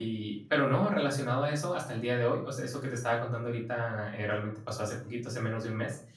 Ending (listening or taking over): listening